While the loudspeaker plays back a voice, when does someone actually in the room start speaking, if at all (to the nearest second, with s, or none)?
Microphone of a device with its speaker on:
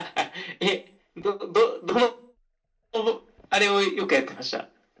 none